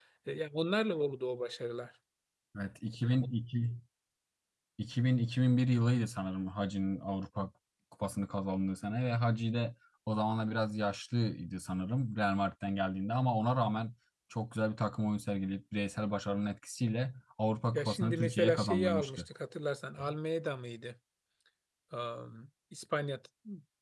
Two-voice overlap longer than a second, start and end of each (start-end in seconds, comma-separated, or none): 17.7-19.2